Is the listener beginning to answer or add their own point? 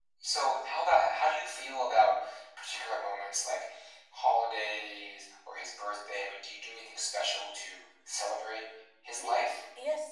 Yes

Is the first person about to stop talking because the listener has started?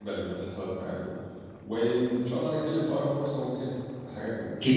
Yes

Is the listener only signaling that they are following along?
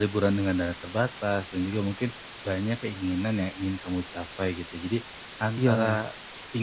Yes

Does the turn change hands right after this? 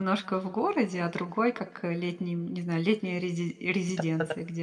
Yes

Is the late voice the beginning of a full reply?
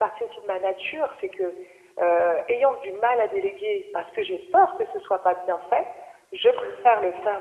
No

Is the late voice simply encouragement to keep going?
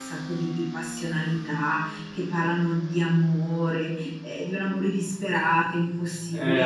No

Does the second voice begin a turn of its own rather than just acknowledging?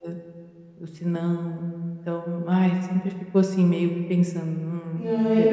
Yes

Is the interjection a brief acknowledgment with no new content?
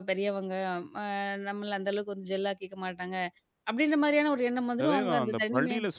No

